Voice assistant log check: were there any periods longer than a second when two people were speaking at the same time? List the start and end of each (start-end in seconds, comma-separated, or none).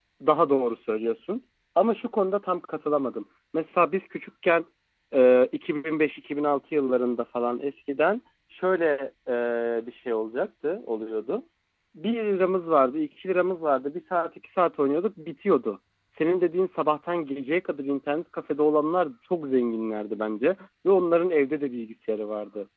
none